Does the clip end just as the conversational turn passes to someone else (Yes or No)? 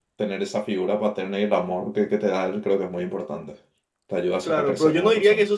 Yes